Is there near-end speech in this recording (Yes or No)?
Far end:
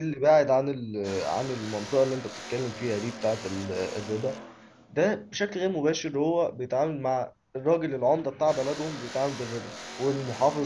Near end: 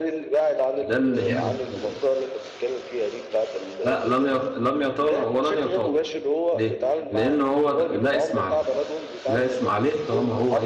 Yes